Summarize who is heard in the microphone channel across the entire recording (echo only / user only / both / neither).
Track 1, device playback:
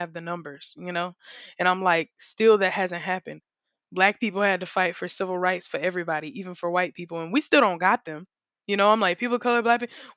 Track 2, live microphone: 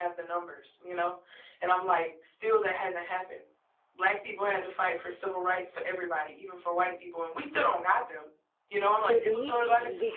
both